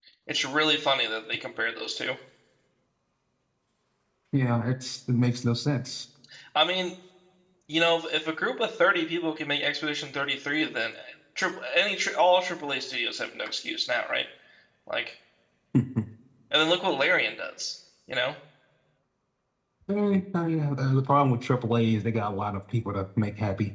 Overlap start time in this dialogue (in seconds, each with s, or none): none